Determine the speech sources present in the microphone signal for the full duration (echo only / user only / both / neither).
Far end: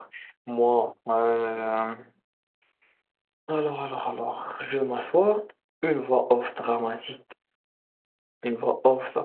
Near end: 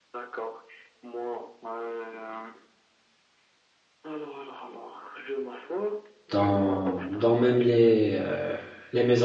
both